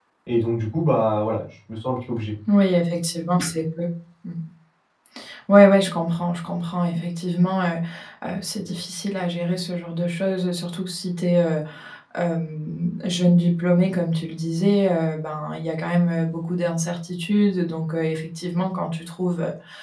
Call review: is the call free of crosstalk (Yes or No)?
Yes